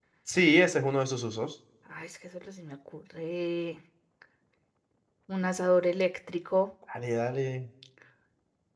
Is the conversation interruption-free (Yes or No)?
Yes